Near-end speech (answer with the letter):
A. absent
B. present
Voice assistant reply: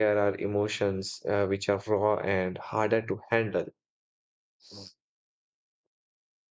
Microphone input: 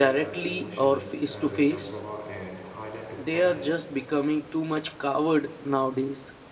B